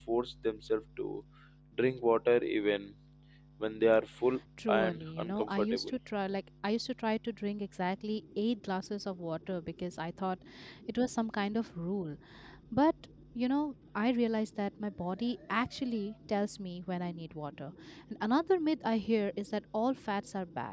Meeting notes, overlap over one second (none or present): present